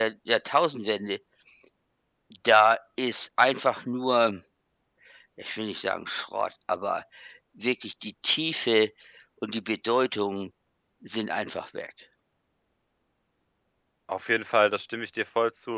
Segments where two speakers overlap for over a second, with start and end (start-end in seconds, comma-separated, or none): none